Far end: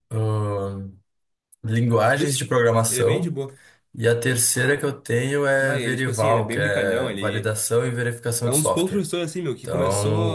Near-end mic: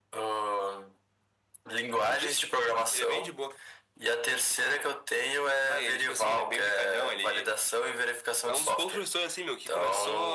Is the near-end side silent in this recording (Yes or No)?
Yes